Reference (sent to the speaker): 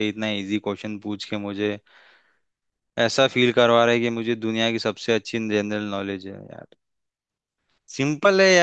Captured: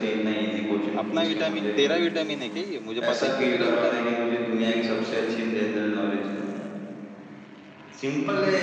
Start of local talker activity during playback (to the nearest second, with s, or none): 1 s